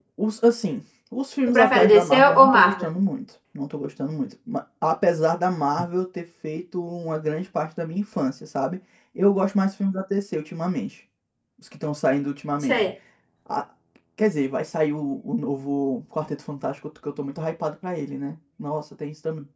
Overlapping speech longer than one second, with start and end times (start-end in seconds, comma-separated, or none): 1.5-2.9